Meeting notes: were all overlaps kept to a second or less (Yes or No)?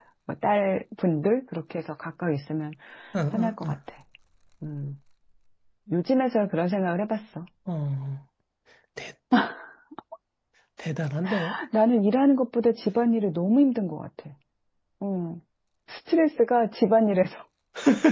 Yes